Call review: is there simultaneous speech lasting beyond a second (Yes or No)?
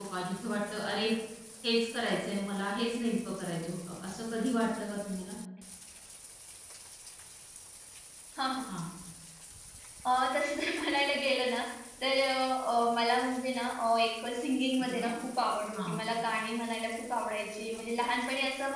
No